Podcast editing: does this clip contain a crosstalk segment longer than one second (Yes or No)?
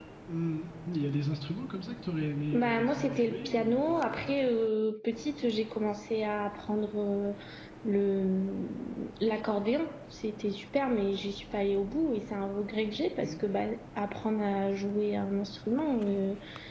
Yes